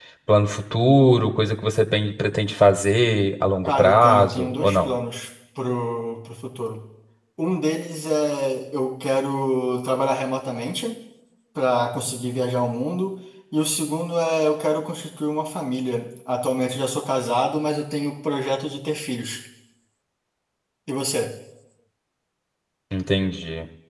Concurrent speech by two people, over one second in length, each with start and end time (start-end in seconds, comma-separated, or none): 3.6-4.9